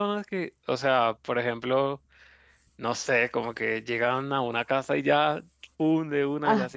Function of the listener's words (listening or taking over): taking over